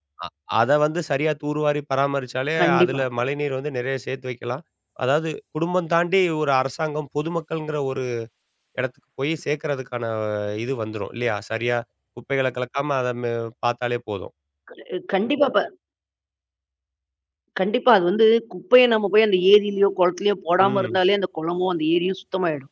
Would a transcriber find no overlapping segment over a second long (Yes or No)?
Yes